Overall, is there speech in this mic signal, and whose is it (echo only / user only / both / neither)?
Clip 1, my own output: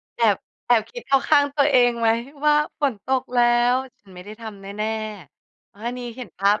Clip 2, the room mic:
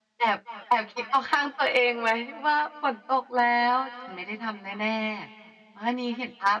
echo only